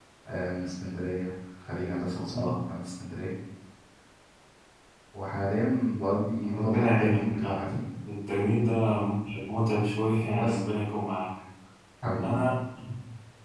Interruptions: present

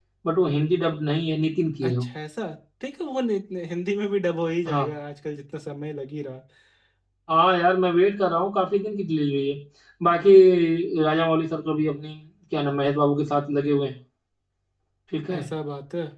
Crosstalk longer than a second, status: none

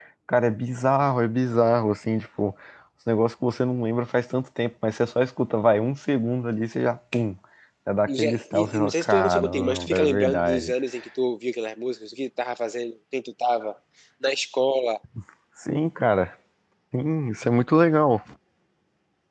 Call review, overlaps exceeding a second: present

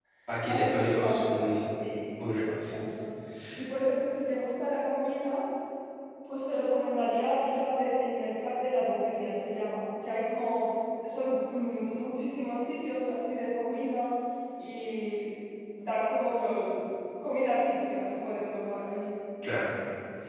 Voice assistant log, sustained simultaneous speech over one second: present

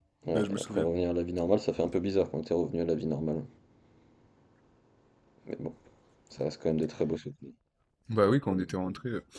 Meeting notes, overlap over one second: none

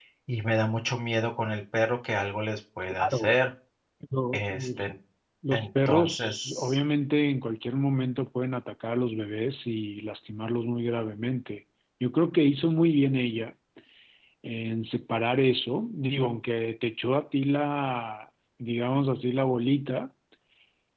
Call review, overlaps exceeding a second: present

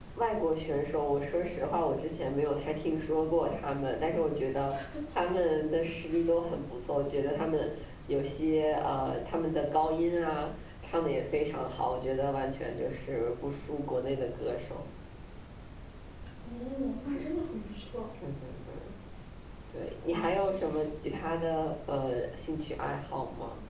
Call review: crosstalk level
none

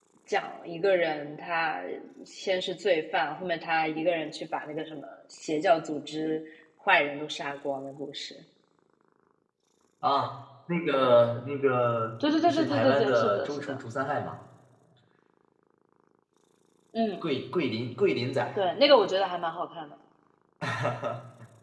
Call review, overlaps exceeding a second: present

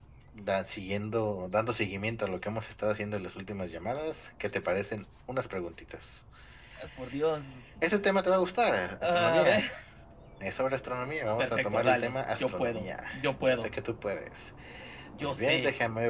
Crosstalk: present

